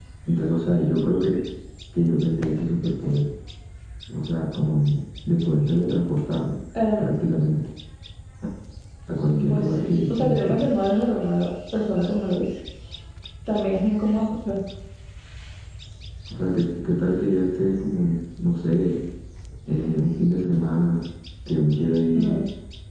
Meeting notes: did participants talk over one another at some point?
Yes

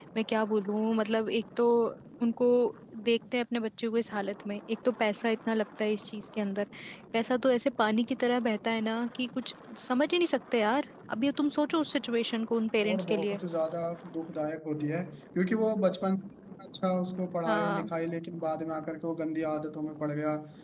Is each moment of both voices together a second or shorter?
Yes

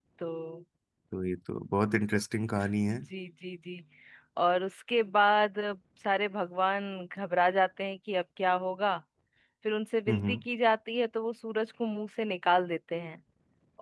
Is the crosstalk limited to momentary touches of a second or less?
Yes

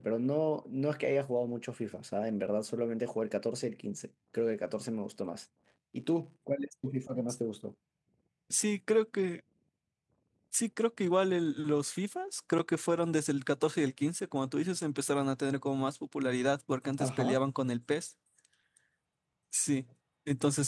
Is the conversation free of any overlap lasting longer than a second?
Yes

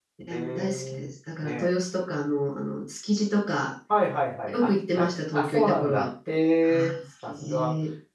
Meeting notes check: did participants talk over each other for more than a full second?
Yes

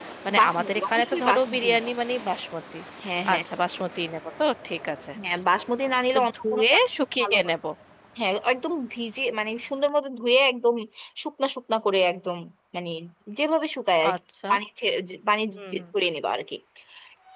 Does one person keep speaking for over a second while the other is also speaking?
Yes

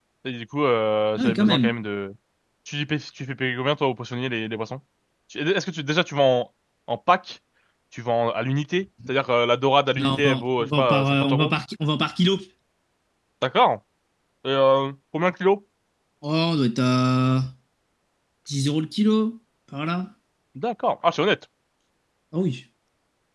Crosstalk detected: Yes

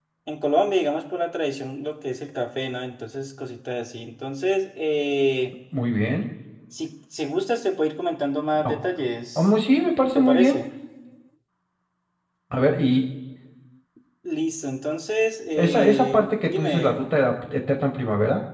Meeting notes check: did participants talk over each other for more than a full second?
Yes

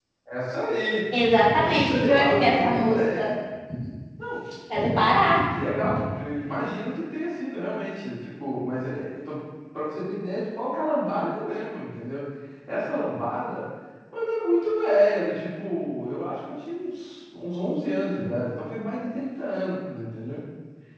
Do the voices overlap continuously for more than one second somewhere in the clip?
Yes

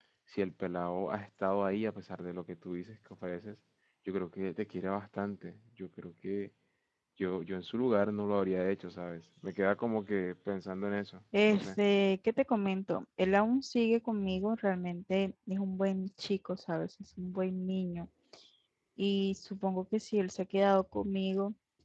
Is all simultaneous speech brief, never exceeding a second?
Yes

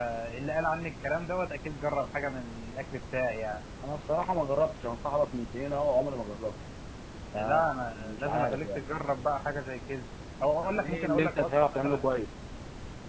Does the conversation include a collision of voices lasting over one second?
Yes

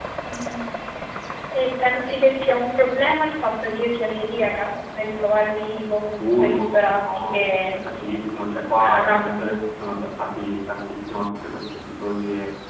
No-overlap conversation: No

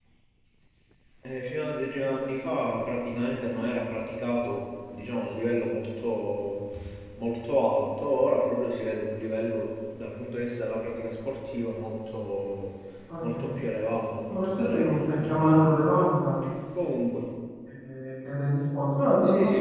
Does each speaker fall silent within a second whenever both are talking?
No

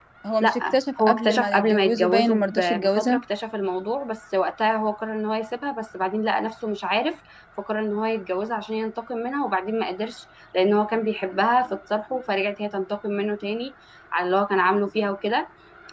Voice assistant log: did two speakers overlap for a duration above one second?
Yes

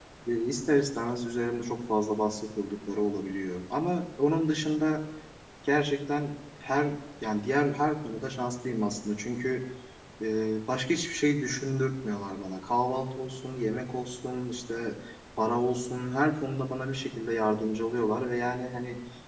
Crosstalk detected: No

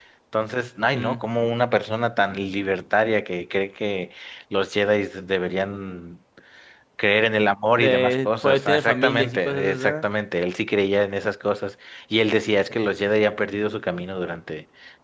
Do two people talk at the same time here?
Yes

